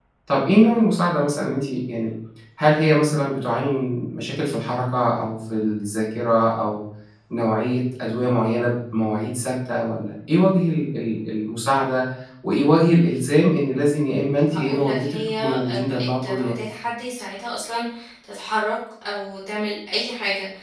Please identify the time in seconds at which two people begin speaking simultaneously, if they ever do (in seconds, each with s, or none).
14.5 s